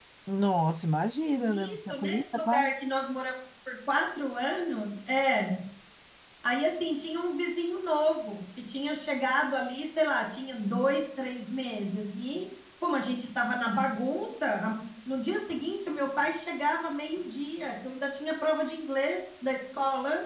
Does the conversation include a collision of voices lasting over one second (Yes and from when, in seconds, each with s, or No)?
Yes, from 1.4 s